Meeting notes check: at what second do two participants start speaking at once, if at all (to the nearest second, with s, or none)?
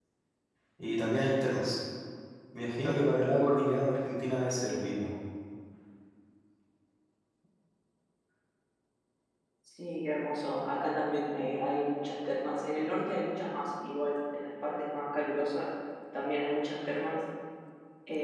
none